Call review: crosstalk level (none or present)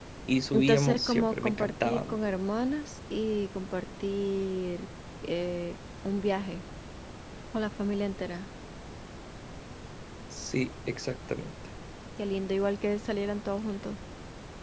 present